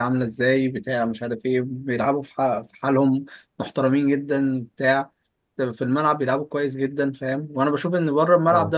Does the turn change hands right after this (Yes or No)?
No